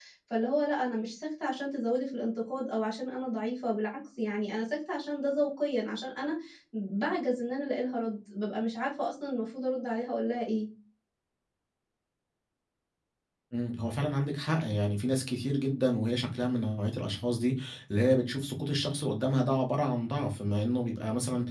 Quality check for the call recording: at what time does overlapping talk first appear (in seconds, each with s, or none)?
none